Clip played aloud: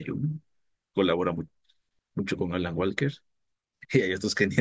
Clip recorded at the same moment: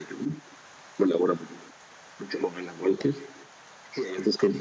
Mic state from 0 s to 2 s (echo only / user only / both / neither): echo only